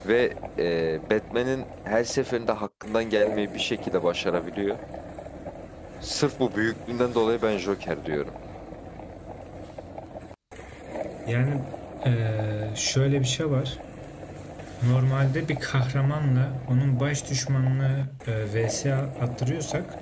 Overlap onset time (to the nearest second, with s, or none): none